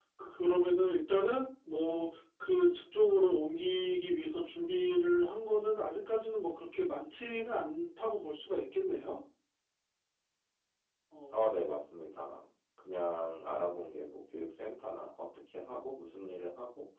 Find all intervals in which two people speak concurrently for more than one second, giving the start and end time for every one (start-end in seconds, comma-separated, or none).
none